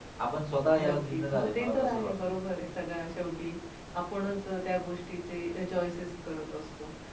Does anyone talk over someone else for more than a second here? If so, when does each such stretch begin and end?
0.8-2.1

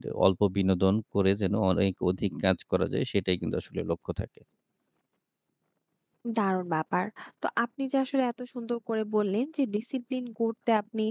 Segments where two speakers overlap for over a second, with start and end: none

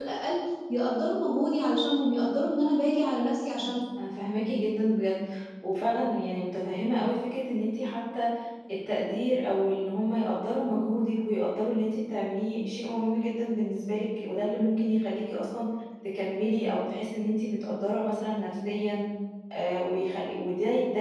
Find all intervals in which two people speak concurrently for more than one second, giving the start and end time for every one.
none

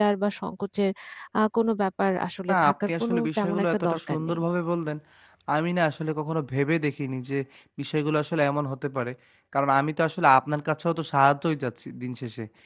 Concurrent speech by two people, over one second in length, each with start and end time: 2.5-4.4

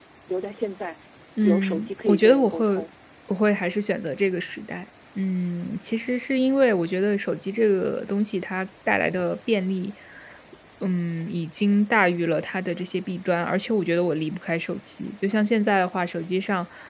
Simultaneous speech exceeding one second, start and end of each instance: 1.4-2.6

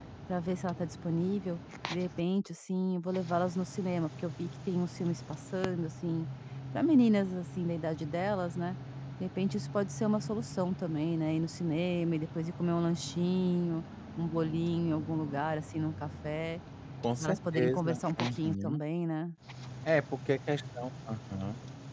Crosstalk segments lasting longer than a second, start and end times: 17.2-18.8

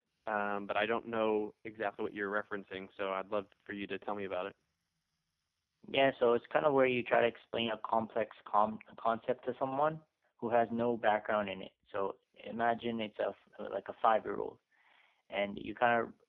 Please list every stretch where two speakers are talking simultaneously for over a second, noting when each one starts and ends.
none

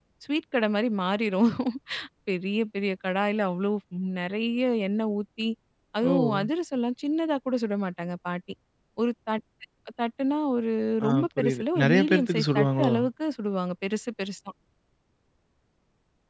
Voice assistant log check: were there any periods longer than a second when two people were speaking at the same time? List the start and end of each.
11.1-12.9

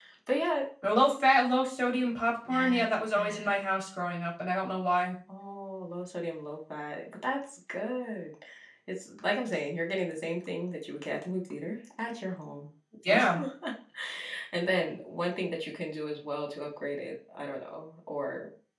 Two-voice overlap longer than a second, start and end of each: none

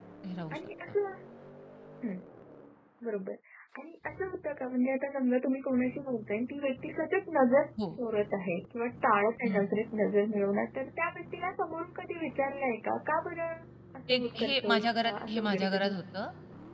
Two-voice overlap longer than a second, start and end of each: 14.1-15.9

